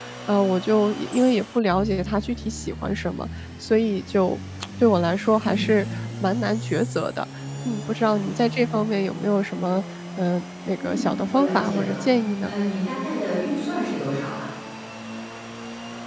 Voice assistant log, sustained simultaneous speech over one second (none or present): present